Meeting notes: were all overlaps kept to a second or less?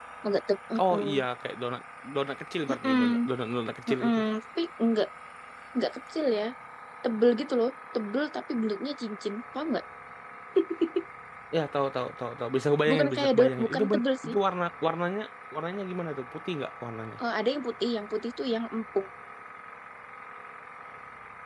No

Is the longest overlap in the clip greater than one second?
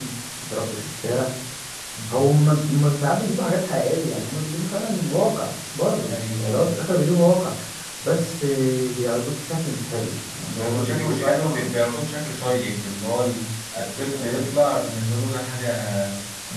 Yes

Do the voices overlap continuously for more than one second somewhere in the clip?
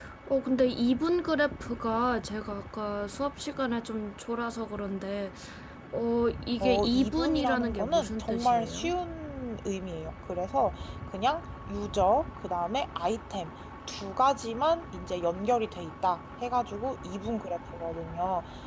Yes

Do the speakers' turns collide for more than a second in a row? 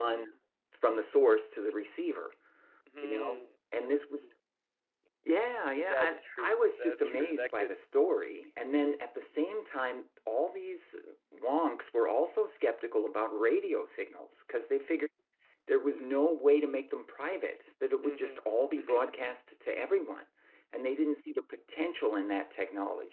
Yes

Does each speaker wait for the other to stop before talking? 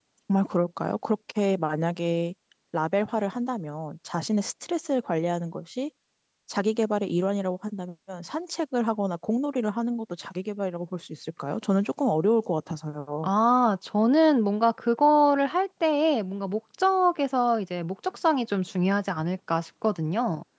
Yes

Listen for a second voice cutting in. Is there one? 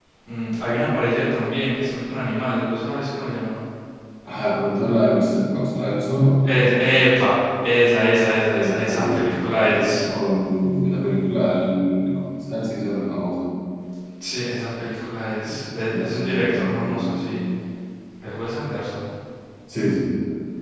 Yes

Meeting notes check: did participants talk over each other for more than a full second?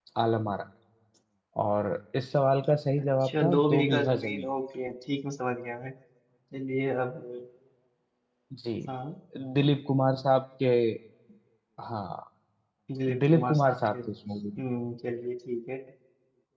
Yes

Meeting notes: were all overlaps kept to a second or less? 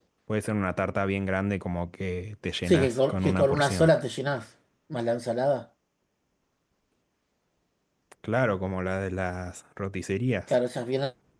No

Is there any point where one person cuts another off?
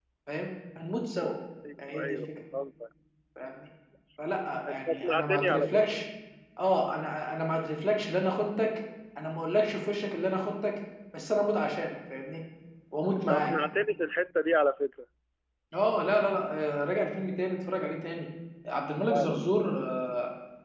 Yes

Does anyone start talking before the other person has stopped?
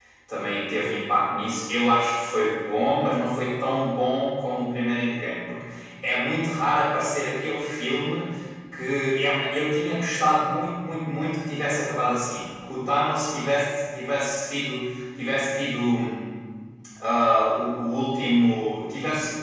No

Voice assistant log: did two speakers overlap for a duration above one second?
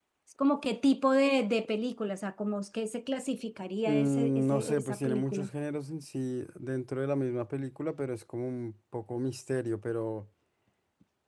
Yes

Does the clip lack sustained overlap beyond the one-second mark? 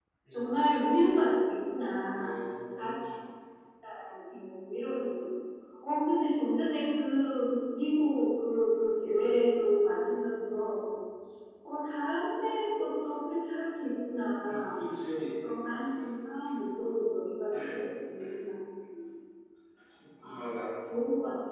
Yes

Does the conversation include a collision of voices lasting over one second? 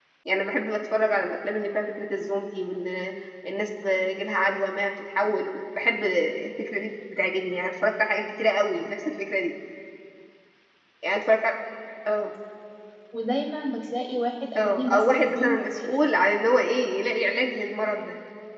Yes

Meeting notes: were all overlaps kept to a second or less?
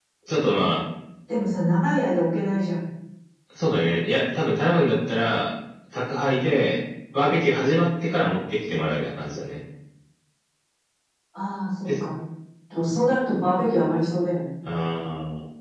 Yes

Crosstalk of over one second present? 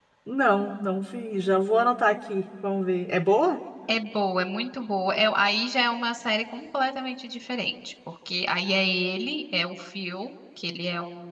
No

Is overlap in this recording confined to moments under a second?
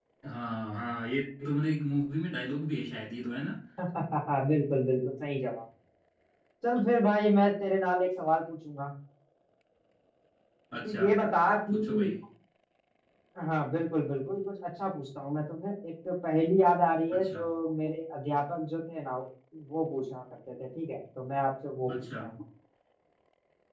Yes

